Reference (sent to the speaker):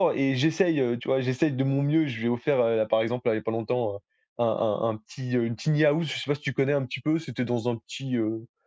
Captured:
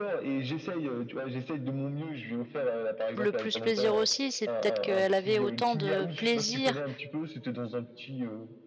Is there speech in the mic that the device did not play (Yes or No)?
Yes